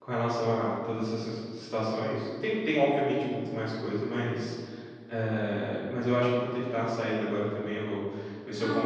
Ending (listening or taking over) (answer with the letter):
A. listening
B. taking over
A